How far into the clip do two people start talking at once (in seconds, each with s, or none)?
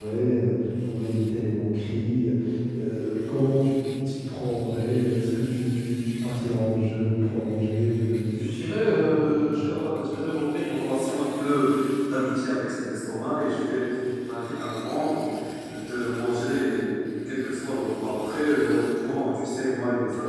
8.6 s